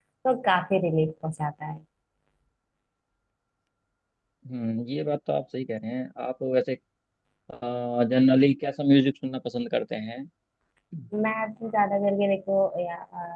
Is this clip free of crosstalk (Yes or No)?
Yes